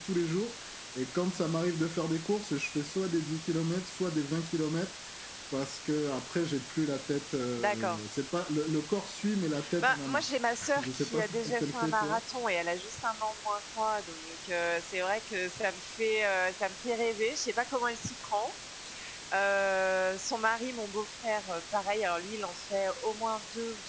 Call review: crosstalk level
present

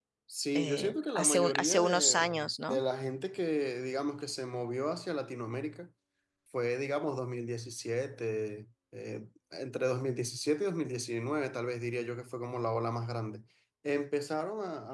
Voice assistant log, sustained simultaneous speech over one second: present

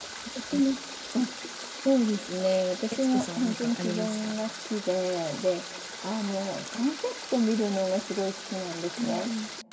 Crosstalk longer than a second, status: present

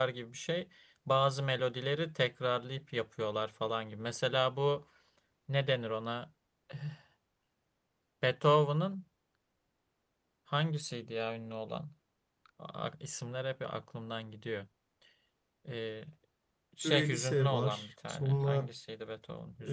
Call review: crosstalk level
present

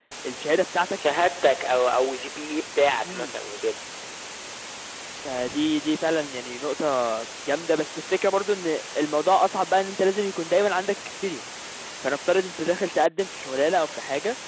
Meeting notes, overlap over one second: none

